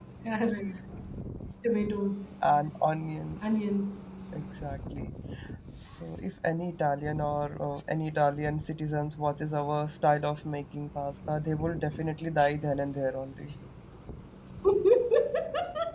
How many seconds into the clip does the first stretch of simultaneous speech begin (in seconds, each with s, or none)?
none